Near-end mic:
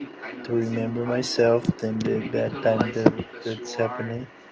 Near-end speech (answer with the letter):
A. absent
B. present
B